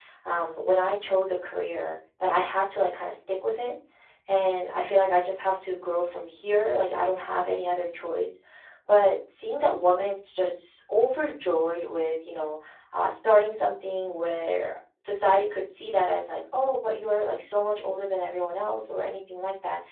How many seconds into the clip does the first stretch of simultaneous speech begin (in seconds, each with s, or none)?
none